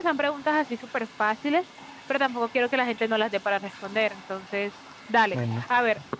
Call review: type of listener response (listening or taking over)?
listening